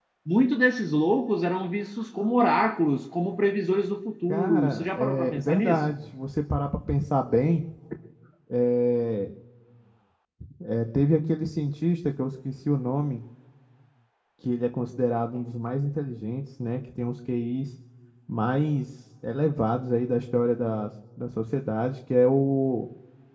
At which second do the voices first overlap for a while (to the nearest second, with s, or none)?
4 s